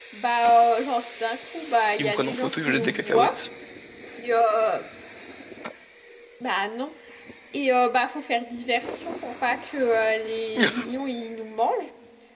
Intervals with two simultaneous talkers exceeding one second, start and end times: 2.0-3.4

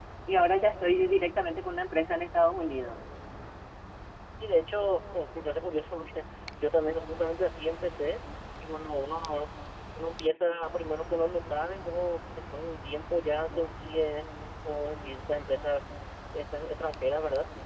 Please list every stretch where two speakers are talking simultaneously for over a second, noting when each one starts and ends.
none

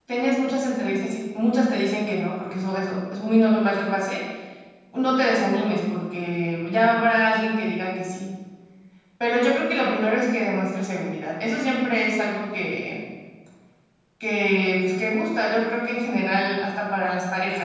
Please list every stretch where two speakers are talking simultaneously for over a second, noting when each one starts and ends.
none

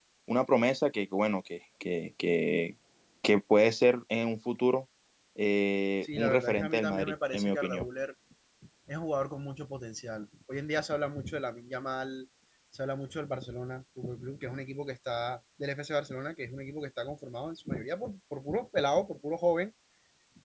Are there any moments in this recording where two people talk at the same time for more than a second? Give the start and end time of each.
6.0-7.8

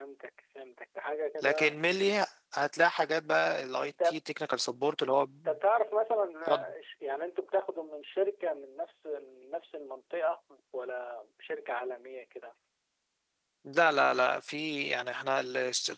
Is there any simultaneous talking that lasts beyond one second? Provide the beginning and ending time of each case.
none

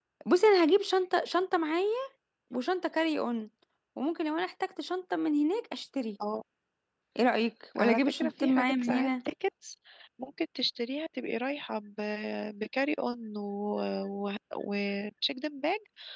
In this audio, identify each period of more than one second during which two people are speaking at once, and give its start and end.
7.8-9.1

